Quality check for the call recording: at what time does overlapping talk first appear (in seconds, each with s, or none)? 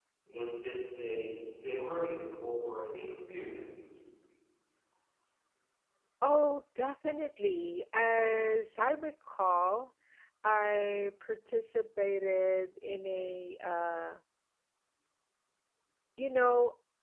none